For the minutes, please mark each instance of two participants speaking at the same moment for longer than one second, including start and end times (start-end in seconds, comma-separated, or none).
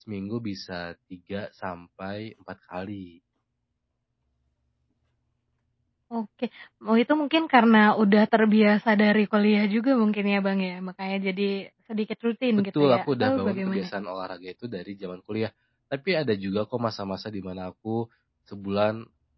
12.6-13.9